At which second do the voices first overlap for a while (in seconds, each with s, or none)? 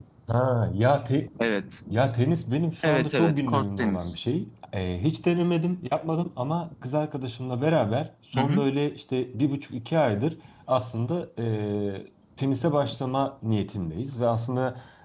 2.8 s